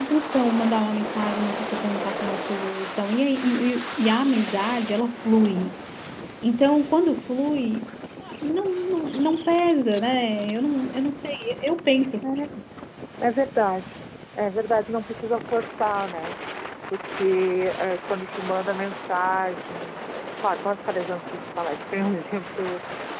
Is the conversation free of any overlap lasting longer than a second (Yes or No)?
Yes